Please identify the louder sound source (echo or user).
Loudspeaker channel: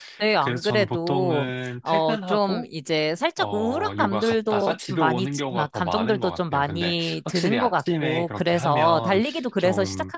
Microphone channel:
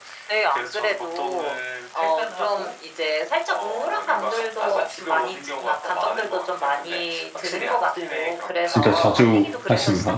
user